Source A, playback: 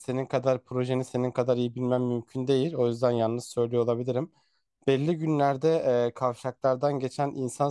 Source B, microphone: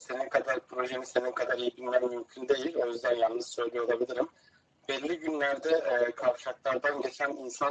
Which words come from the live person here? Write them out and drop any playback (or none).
none